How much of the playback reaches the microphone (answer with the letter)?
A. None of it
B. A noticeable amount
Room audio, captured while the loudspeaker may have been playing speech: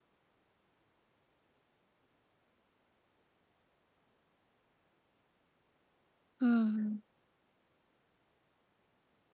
A